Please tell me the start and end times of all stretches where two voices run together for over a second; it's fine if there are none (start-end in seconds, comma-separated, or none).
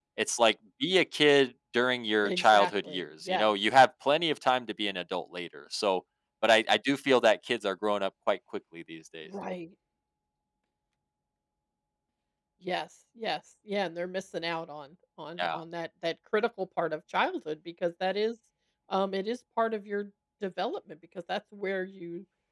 2.2-3.5